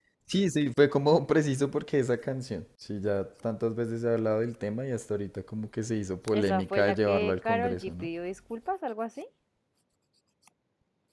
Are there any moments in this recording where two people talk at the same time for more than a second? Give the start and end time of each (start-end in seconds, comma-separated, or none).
6.3-8.1